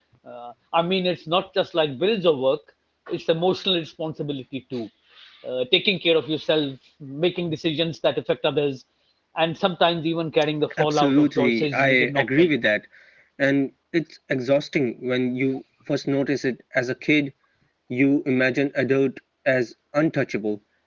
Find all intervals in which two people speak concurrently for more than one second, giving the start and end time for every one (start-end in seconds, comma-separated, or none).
10.8-12.5